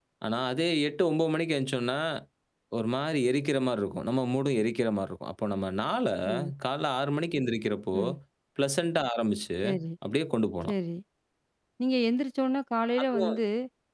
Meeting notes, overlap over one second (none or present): none